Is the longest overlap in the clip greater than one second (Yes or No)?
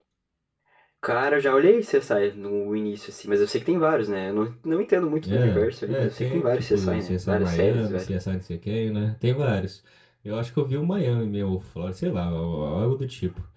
Yes